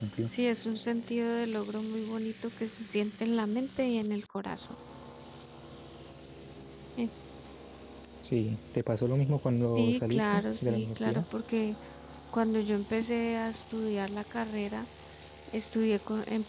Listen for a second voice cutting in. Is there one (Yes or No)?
Yes